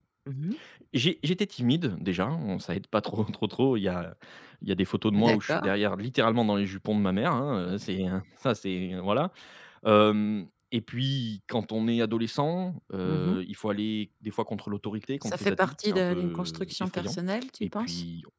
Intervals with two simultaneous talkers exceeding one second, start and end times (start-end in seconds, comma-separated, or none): 15.2-17.2